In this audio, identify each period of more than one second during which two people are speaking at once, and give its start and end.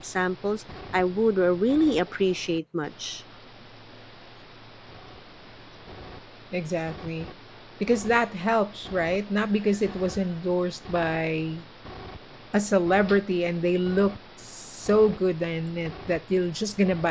none

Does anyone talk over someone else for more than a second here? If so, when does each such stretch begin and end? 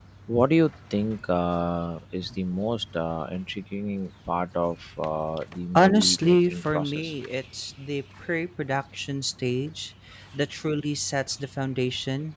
5.8-7.1

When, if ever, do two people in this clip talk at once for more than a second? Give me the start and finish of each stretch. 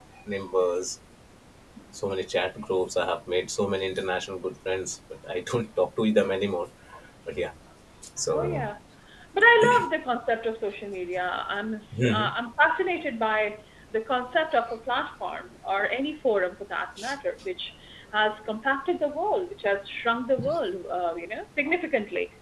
none

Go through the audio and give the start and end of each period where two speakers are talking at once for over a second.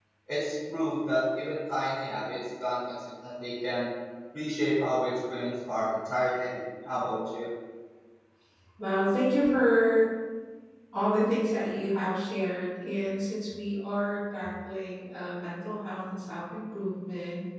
none

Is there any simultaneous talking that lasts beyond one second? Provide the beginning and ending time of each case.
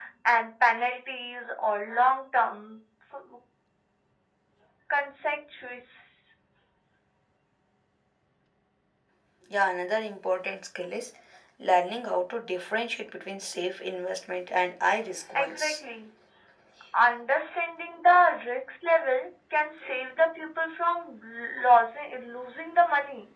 none

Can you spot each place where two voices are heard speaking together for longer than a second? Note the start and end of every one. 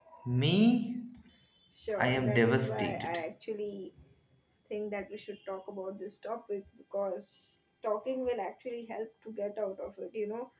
2.0-3.2

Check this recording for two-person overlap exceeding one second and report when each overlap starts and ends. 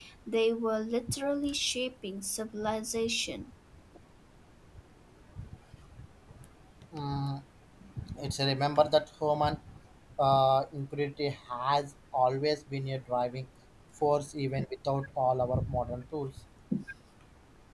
none

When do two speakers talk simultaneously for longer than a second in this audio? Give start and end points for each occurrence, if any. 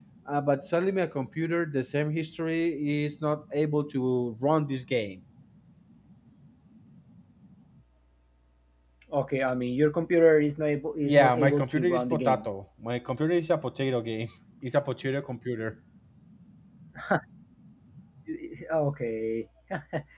11.0-12.5

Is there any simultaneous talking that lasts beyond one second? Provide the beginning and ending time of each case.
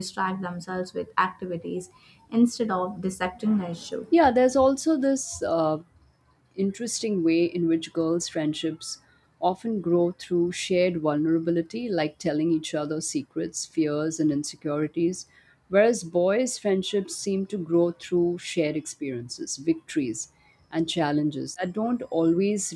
none

